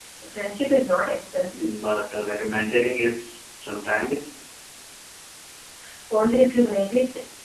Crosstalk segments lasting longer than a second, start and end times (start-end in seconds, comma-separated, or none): none